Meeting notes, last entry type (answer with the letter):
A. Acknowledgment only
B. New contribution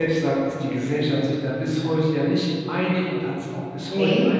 A